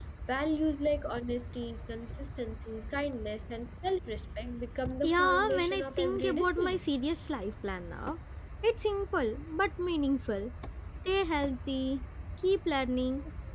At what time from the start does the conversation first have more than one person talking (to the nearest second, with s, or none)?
5 s